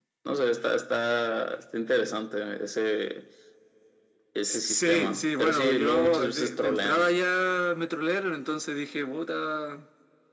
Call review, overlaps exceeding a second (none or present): present